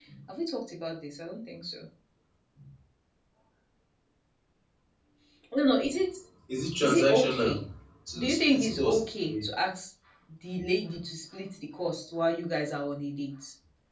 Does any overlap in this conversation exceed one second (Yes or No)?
Yes